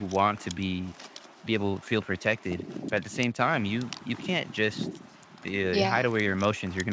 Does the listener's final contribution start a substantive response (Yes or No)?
No